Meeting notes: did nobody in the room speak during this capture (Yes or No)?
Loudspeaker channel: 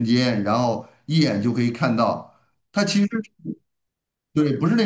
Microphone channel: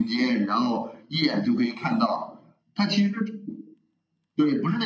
Yes